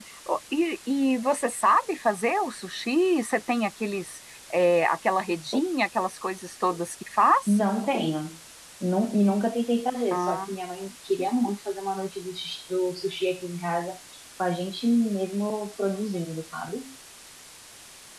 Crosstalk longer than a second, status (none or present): none